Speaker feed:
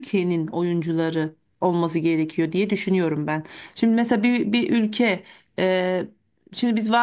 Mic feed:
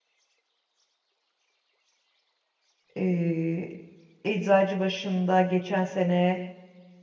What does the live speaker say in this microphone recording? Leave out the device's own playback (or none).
Ee, Eczacıbaşı'nda geçen sene,